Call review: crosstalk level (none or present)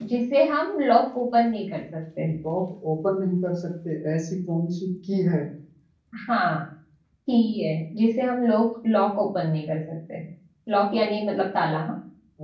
none